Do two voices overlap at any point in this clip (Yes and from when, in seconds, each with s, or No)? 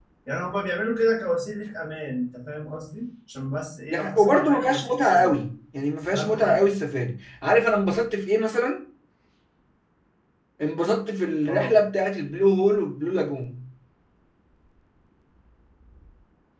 Yes, from 3.9 s